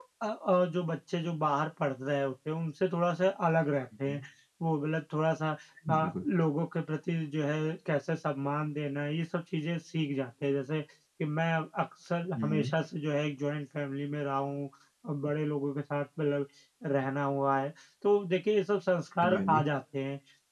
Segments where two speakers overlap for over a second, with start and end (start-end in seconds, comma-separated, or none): none